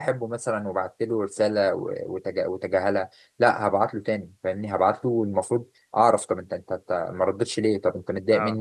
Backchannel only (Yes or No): Yes